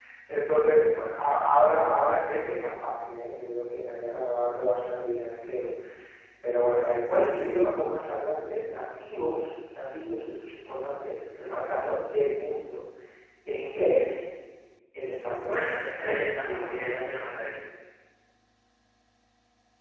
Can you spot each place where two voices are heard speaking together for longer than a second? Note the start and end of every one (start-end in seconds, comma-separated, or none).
15.5-17.2